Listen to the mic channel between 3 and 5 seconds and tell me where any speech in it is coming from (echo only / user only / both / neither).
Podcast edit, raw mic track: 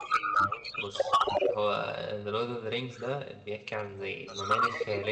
both